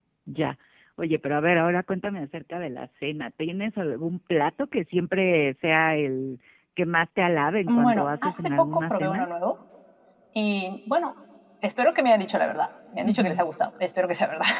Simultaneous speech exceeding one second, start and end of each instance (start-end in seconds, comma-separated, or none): 7.7-9.2